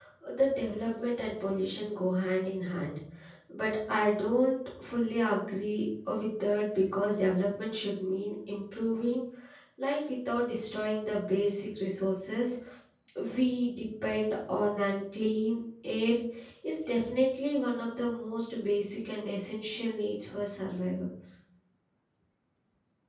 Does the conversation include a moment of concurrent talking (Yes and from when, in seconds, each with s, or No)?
No